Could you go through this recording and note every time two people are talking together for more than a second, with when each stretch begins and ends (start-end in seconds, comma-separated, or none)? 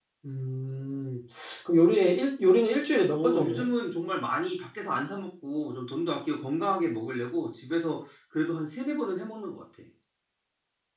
none